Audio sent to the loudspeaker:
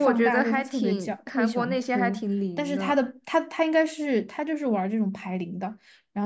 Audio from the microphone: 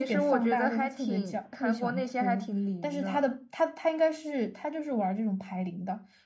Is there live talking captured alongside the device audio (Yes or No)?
No